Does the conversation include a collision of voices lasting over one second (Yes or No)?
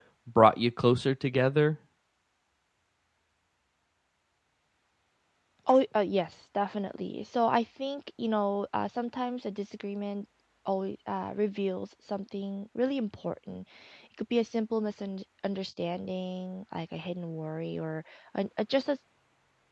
No